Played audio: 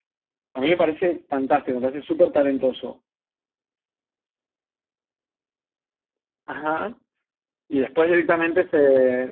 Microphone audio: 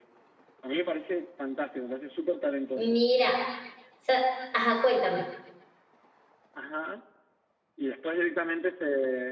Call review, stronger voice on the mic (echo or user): user